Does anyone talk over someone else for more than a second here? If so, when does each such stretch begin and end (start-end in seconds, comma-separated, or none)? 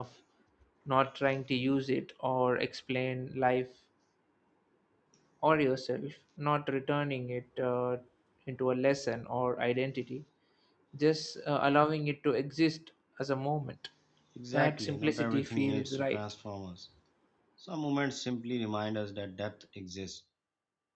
14.5-16.2